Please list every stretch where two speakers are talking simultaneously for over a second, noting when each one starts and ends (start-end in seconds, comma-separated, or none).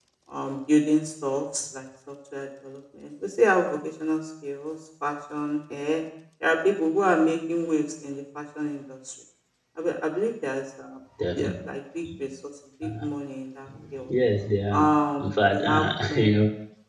14.7-16.3